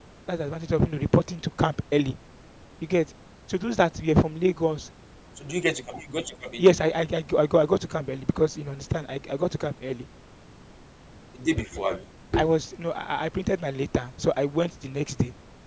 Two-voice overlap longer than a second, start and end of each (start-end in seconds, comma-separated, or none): none